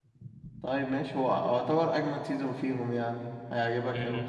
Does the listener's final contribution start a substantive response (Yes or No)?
Yes